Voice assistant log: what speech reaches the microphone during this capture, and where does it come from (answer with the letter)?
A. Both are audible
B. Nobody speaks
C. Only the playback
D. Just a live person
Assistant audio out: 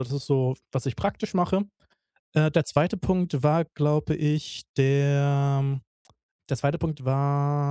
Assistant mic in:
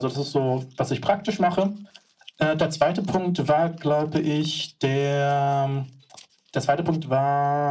C